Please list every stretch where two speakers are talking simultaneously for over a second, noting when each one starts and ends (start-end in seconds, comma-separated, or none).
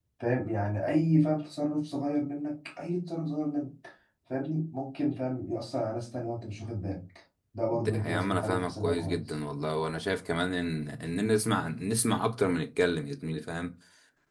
7.7-9.4